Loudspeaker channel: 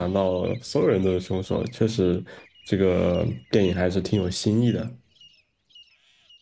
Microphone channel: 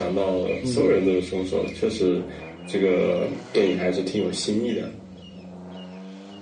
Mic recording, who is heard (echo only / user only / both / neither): both